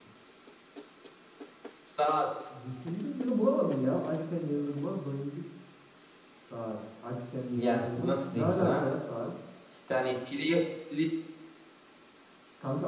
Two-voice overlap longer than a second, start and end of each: 7.5-8.9

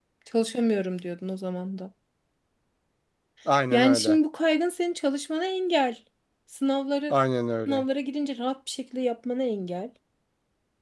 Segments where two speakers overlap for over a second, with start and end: none

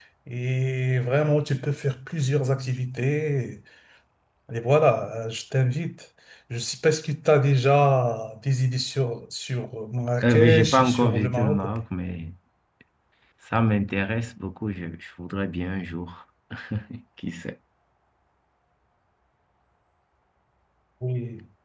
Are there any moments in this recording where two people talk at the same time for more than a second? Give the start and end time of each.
10.2-11.6

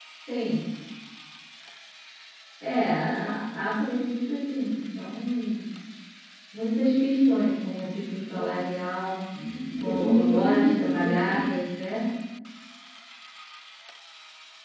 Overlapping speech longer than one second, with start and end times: 9.8-11.5

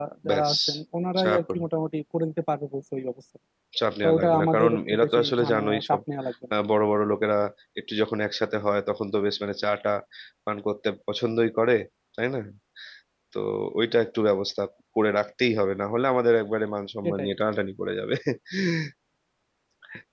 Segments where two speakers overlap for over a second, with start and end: 4.0-6.0

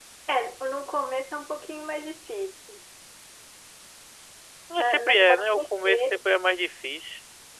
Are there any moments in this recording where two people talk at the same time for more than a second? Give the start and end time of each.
4.8-6.2

